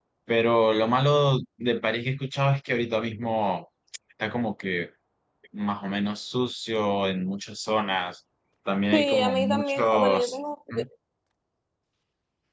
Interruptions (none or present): present